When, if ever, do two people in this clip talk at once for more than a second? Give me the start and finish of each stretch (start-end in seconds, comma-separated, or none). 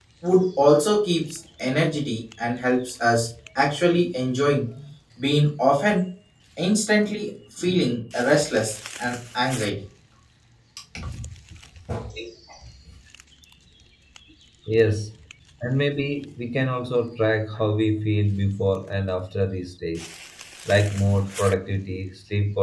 none